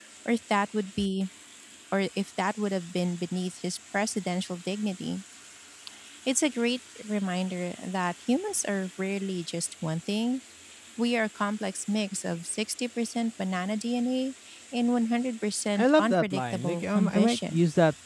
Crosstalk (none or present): present